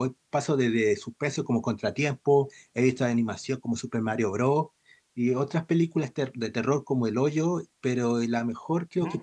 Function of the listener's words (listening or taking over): listening